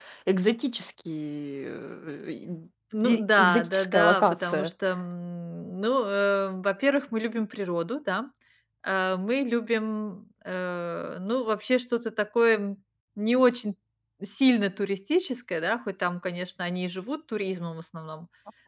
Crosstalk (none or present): present